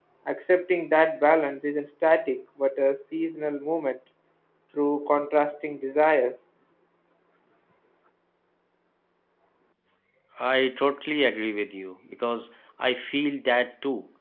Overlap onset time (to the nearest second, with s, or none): none